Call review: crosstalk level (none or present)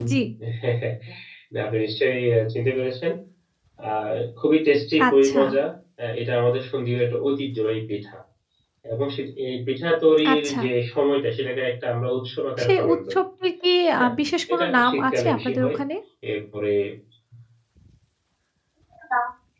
present